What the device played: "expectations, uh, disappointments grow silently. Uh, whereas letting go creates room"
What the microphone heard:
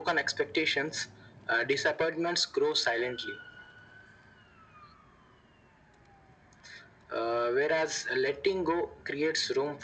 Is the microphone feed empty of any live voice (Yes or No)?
Yes